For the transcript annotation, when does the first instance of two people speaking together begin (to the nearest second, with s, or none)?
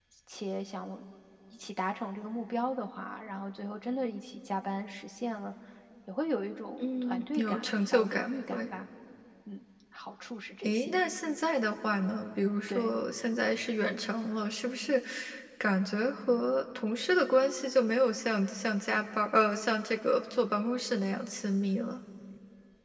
7 s